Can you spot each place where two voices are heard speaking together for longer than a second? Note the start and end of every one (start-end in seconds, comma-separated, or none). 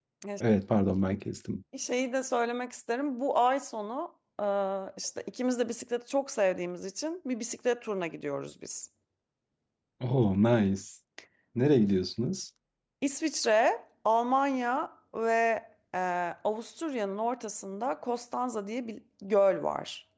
none